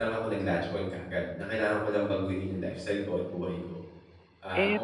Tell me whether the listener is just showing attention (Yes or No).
No